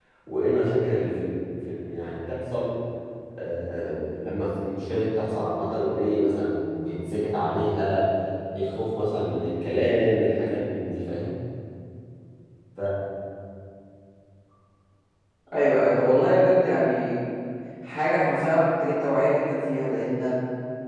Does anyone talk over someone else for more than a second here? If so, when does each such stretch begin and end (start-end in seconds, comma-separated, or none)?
none